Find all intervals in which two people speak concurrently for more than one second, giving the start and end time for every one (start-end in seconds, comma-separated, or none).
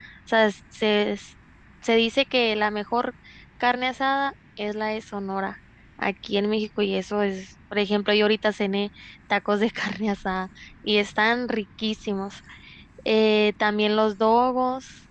none